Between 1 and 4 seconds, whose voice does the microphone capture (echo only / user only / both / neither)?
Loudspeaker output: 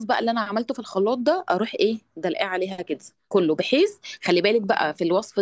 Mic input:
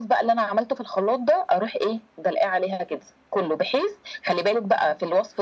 echo only